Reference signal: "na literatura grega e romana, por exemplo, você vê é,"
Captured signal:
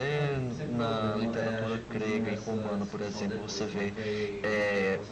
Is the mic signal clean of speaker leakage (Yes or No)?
No